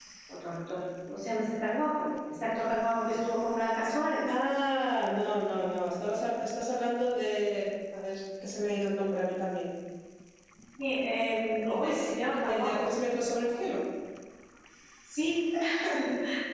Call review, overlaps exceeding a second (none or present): none